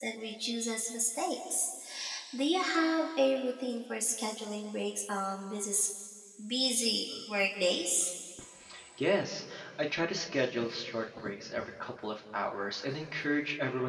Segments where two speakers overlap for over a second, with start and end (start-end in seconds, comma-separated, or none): none